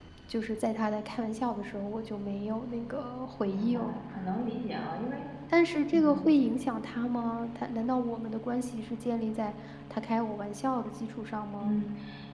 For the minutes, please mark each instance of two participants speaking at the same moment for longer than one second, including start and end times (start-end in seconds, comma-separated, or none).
none